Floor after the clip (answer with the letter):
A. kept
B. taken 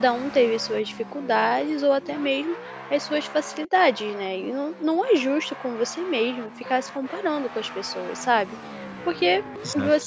A